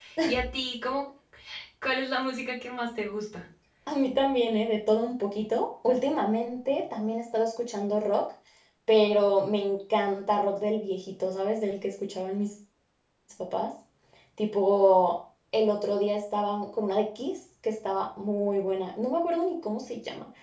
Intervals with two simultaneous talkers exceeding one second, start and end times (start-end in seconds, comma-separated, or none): none